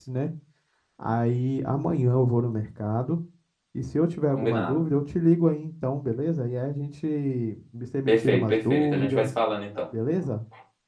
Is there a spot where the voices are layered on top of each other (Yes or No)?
Yes